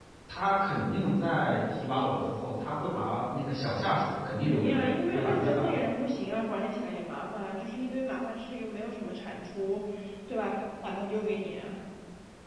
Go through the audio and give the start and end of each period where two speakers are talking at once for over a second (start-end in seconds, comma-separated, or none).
4.5-5.9